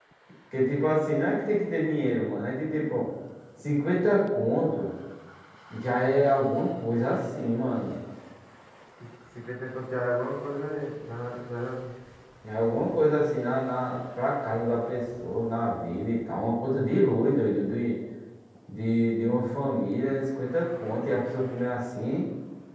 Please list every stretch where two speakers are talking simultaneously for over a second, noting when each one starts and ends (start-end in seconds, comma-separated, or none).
none